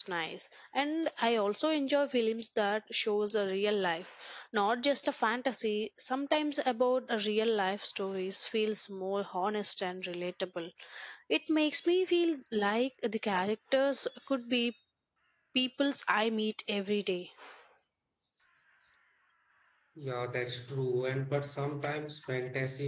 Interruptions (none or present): none